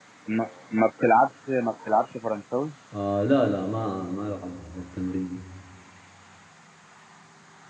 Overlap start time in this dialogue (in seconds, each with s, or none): none